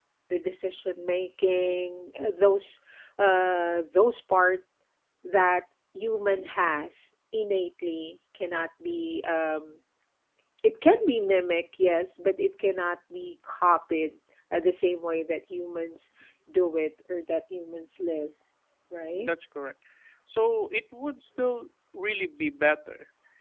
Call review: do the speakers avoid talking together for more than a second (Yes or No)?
Yes